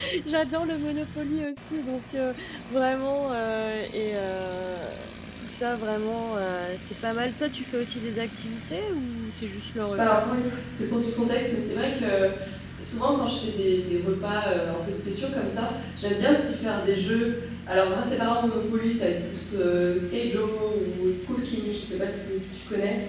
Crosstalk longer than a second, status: none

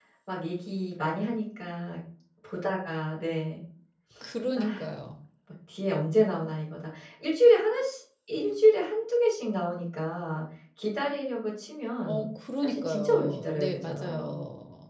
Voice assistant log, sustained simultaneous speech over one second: present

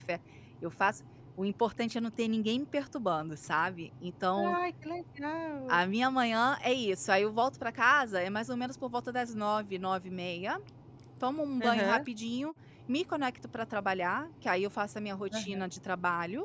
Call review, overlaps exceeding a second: none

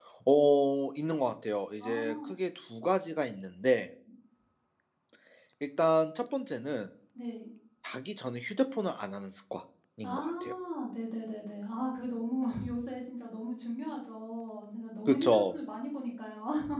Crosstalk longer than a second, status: none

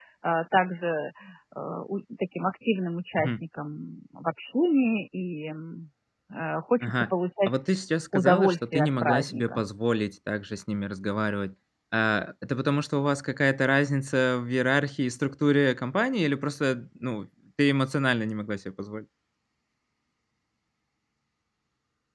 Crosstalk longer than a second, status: present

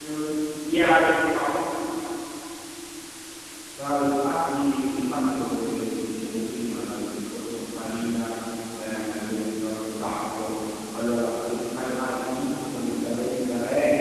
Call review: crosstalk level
none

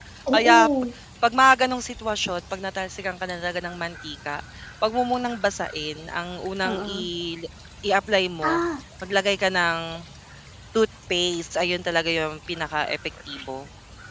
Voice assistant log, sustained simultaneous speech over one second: none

